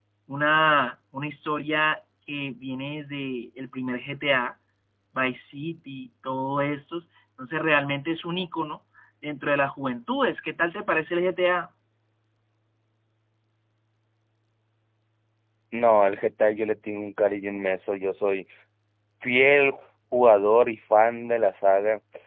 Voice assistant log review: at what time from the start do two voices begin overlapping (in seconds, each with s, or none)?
none